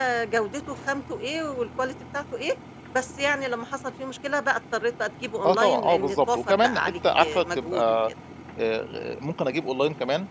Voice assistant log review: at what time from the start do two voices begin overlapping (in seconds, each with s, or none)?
5.4 s